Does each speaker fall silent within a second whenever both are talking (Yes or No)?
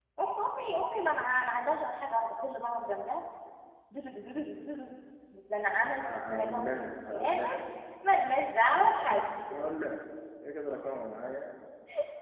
No